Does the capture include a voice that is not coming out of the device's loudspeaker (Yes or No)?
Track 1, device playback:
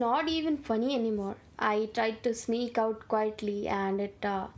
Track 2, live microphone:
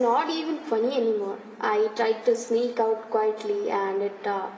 No